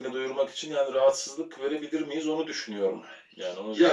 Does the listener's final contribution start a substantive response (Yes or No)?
Yes